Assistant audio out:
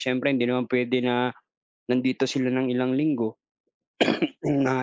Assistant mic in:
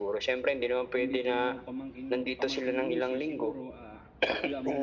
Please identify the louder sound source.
echo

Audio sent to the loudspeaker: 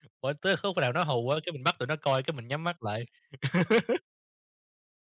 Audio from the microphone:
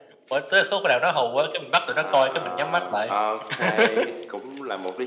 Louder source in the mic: echo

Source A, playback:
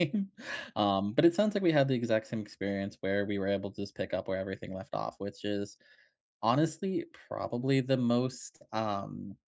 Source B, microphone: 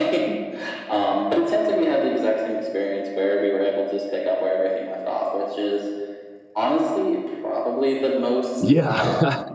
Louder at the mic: user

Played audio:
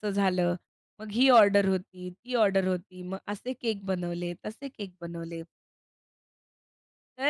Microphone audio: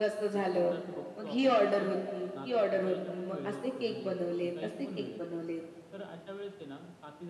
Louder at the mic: echo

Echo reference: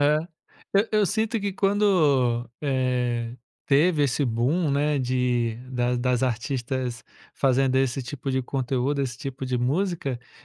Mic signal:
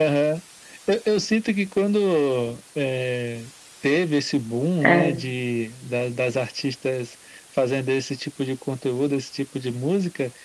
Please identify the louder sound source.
user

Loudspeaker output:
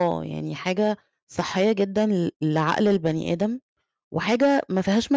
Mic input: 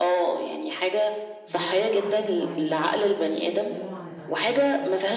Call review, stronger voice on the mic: echo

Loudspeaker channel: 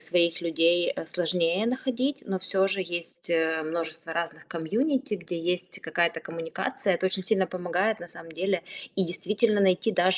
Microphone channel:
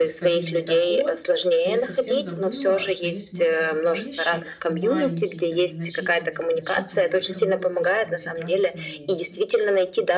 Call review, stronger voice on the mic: echo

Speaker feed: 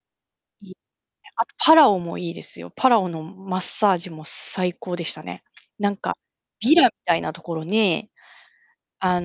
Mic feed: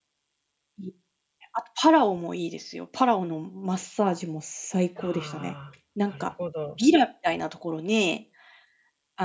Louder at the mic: echo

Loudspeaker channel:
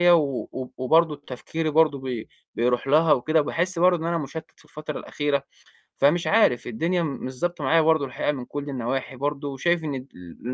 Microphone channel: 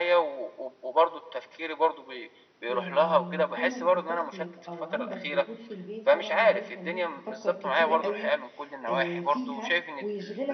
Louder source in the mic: echo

